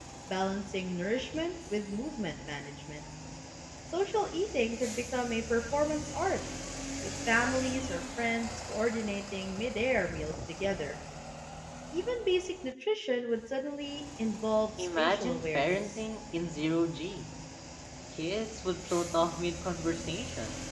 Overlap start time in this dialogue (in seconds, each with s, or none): 14.8 s